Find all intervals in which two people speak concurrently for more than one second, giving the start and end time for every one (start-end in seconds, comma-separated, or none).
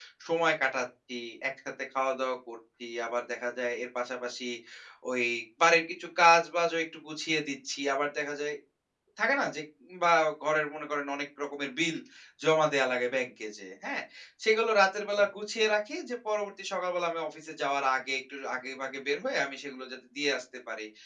none